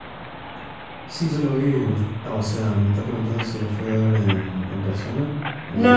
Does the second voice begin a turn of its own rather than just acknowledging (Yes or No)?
Yes